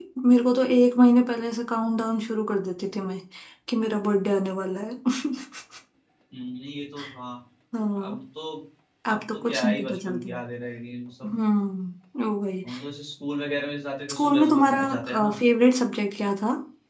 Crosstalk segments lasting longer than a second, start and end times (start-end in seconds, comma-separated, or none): 9.1-10.3, 14.1-15.3